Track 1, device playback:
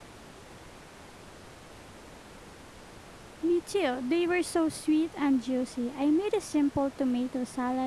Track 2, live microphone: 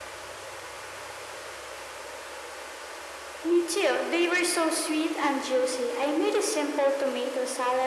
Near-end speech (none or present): none